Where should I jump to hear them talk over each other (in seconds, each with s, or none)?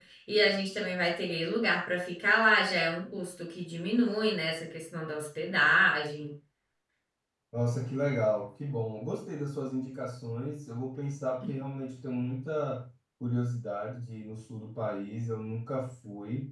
none